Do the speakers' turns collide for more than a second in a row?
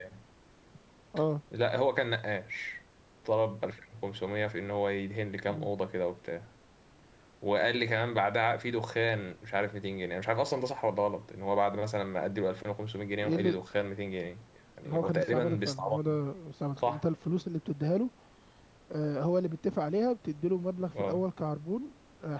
Yes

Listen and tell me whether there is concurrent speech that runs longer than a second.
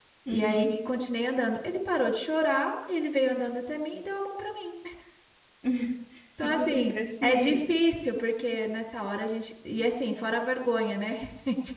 Yes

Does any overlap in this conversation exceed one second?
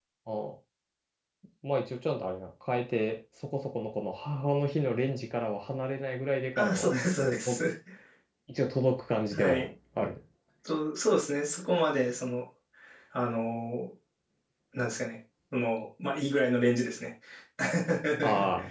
No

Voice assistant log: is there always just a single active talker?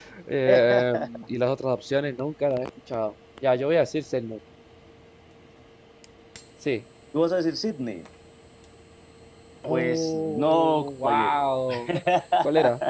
No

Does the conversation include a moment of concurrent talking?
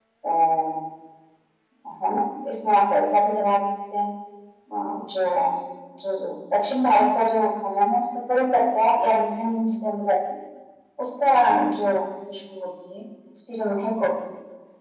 No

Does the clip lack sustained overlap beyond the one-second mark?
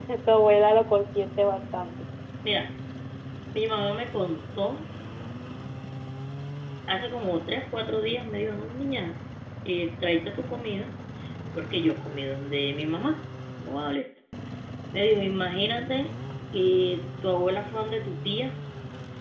Yes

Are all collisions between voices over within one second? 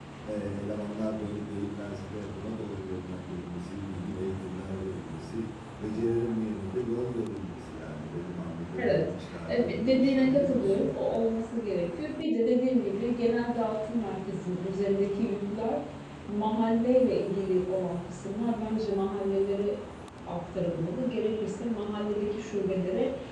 No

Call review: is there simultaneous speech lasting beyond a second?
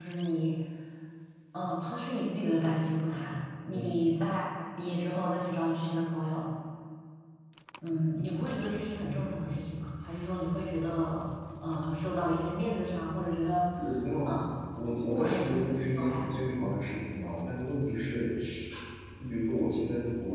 Yes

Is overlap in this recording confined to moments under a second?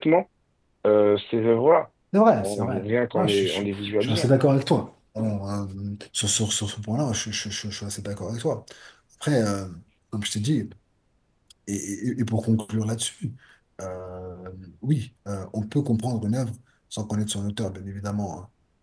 No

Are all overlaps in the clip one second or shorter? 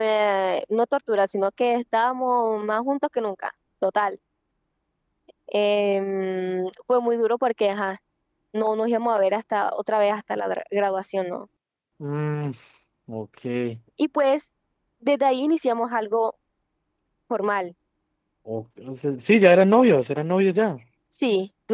Yes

